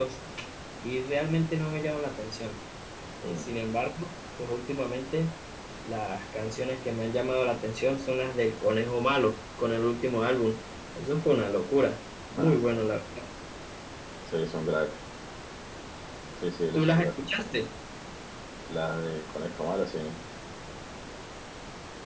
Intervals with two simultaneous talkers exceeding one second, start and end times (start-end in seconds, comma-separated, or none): none